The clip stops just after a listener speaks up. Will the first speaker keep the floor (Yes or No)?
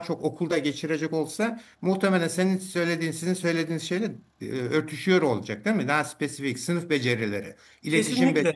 No